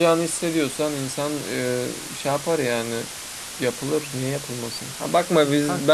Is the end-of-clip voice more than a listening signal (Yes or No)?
No